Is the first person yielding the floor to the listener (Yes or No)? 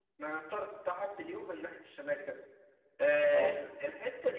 No